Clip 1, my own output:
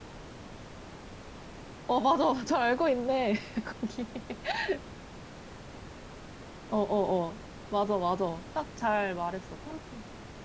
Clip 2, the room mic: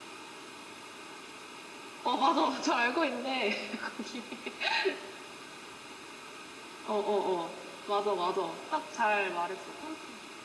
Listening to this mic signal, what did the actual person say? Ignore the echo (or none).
none